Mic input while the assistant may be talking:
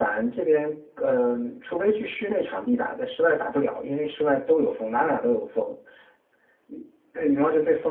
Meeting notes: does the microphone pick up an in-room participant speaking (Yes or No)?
Yes